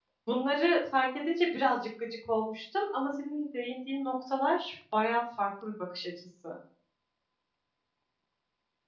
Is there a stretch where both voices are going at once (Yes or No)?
No